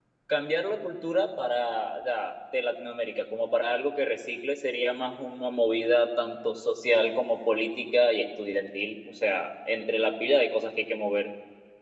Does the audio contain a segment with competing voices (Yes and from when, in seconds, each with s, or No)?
No